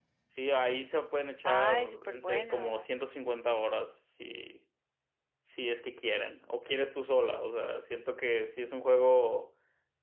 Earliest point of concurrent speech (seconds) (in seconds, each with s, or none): 1.4 s